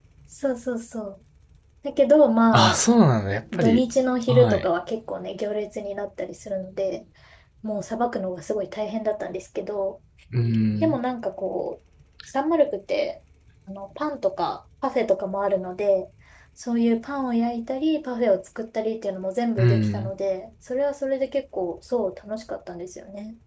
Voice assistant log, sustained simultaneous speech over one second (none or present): none